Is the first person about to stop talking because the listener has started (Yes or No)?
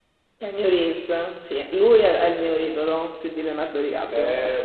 Yes